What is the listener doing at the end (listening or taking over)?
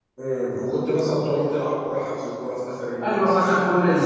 taking over